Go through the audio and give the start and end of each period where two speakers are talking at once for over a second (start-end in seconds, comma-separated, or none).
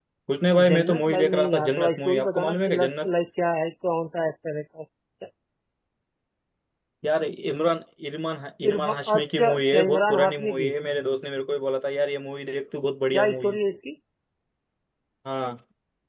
0.7-3.1, 8.7-10.7